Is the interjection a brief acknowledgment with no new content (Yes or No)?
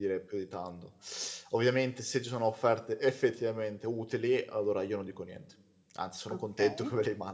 Yes